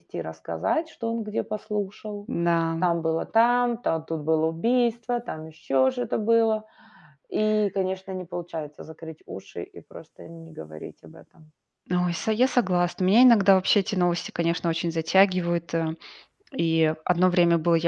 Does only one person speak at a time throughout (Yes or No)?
Yes